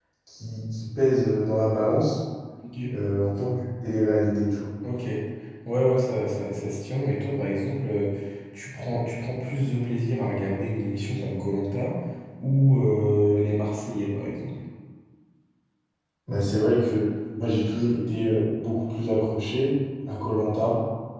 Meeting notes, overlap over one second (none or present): none